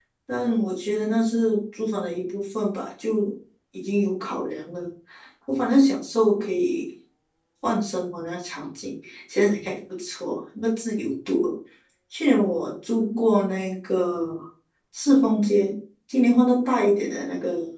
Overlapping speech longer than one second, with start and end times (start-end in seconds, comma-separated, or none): none